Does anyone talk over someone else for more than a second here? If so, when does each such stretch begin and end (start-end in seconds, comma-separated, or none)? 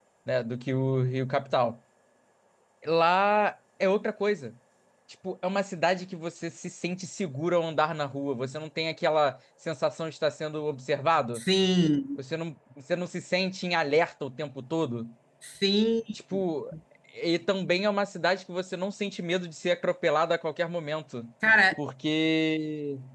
none